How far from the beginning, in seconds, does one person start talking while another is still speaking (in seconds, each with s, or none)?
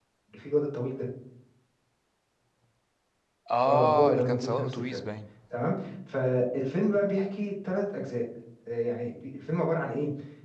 3.7 s